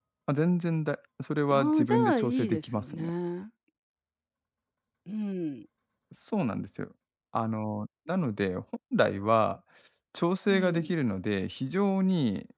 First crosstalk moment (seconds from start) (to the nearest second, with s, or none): 2 s